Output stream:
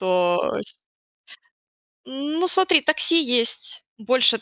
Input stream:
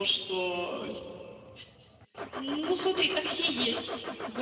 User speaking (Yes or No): No